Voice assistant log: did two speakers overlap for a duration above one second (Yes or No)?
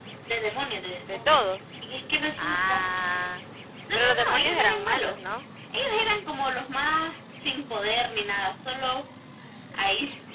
Yes